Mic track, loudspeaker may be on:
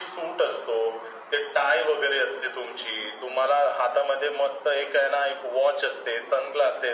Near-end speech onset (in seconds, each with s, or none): none